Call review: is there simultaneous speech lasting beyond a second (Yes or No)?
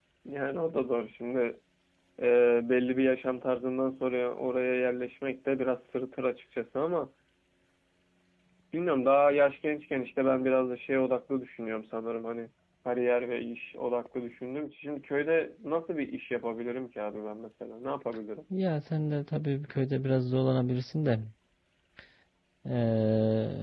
No